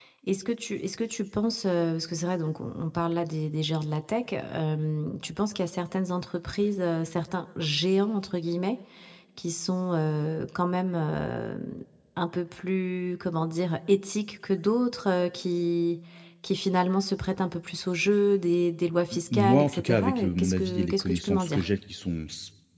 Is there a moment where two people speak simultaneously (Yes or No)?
Yes